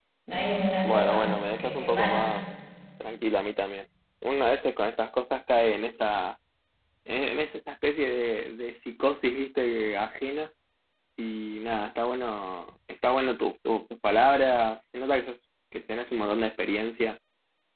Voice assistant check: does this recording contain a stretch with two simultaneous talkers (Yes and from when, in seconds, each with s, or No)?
Yes, from 0.8 s